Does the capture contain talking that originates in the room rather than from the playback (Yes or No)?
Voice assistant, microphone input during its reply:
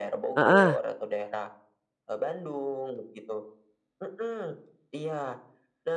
Yes